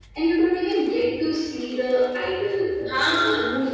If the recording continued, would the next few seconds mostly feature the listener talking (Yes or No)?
No